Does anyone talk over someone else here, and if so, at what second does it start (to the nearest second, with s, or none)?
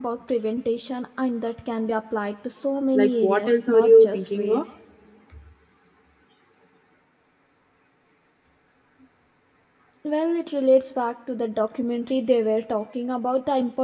3 s